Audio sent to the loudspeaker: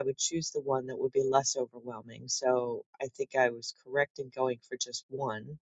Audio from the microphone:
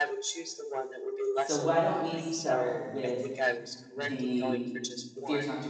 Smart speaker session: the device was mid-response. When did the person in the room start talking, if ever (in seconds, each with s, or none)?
1.3 s